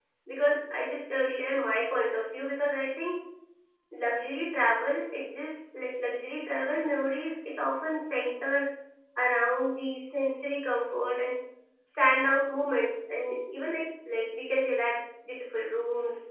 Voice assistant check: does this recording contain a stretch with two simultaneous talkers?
No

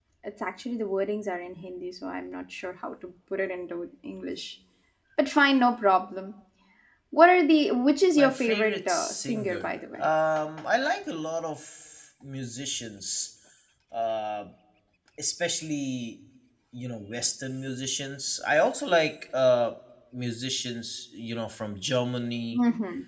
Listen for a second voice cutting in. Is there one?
Yes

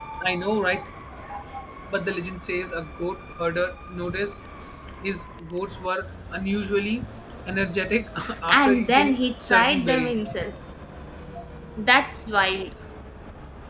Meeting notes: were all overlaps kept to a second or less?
No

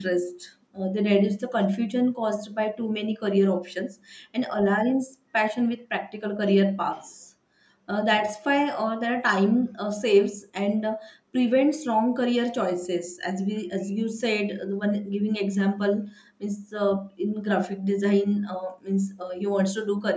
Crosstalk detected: No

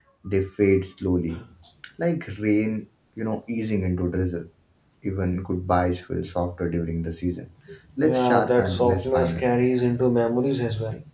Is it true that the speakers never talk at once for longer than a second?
No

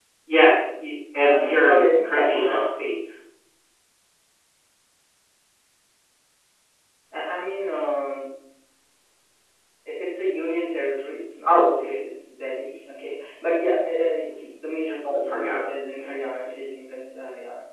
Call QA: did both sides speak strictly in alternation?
No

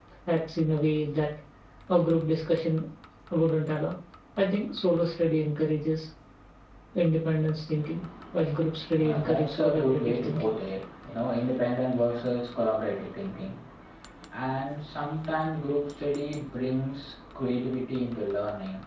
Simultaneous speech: Yes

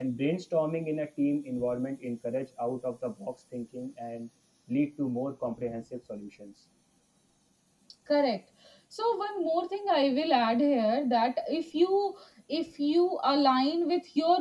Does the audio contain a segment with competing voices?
No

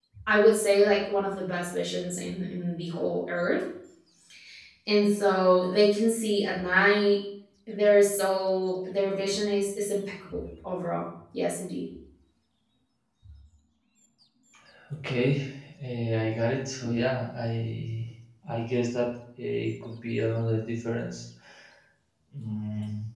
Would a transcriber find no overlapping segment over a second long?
Yes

